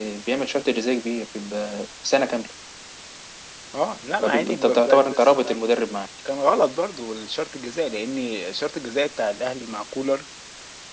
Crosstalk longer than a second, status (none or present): present